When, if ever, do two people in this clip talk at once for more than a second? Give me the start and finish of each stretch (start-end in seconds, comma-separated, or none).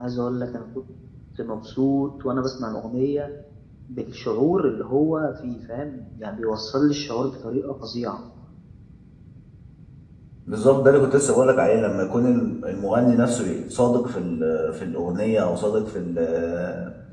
none